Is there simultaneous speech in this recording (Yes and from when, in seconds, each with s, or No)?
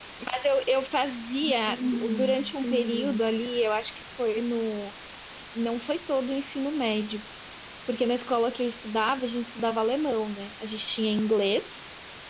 Yes, from 1.4 s